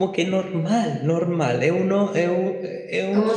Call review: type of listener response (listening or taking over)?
taking over